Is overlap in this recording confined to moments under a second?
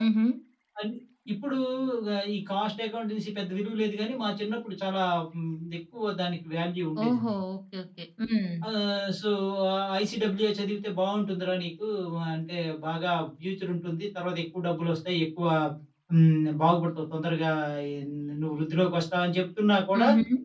Yes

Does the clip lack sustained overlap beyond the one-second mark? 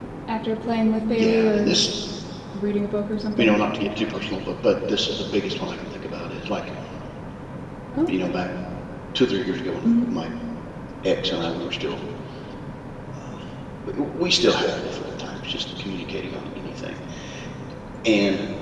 Yes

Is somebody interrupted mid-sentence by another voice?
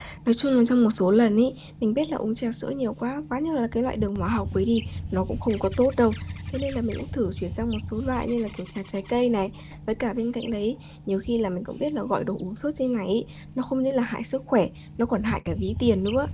No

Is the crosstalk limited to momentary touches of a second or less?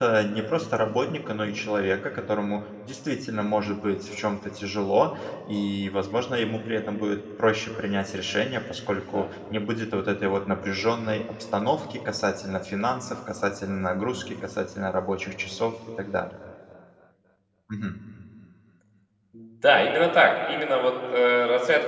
Yes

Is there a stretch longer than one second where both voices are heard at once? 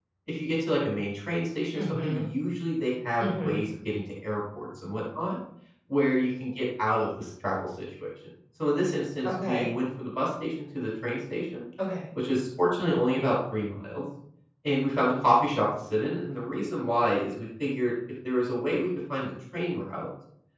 No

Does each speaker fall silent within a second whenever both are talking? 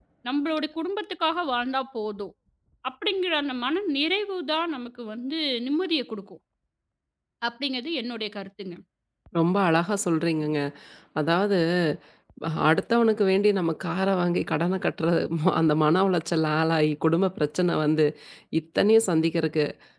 Yes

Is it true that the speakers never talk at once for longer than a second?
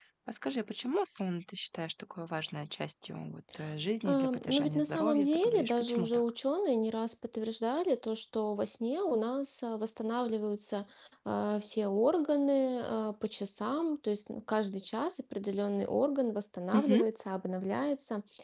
No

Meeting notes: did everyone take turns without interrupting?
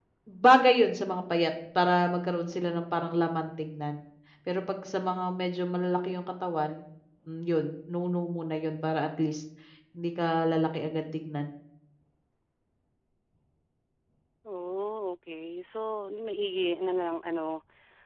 Yes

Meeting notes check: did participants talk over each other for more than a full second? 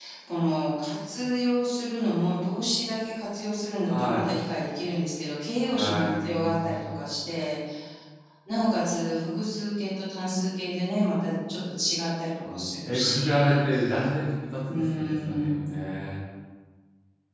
Yes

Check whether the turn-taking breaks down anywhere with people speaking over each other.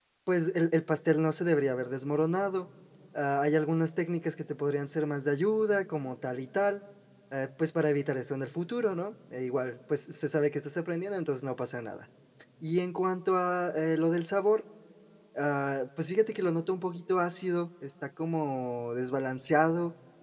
No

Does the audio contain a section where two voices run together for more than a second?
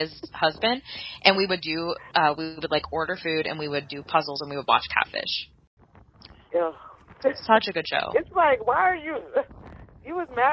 No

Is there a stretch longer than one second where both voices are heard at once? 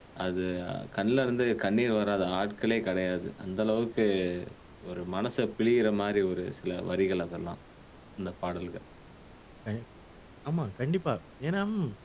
No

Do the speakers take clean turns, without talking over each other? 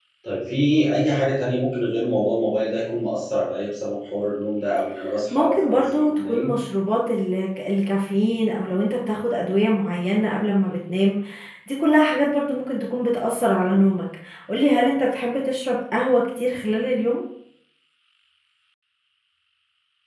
No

